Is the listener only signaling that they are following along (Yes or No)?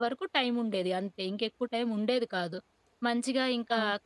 Yes